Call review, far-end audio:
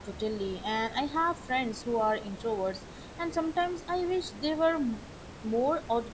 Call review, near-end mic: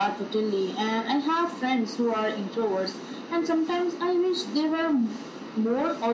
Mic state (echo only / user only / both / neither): echo only